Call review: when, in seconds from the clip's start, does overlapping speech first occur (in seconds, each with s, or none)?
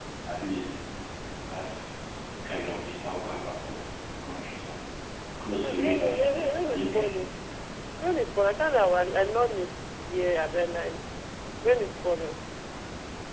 5.5 s